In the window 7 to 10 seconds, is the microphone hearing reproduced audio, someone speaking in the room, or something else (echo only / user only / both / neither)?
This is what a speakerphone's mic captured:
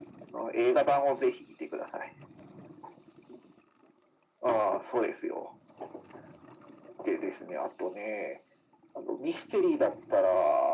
echo only